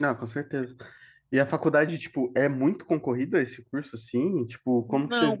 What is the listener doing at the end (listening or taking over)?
taking over